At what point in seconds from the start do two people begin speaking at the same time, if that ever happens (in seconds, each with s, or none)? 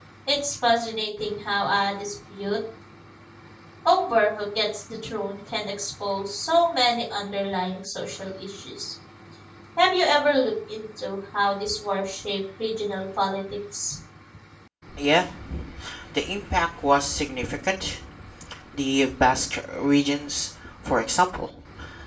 none